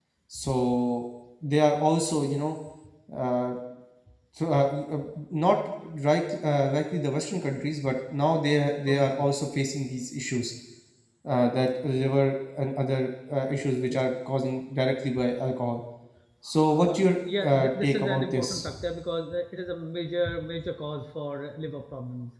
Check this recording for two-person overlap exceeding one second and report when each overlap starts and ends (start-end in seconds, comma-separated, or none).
16.7-18.7